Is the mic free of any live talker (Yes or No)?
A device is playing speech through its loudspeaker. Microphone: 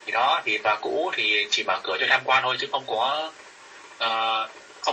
Yes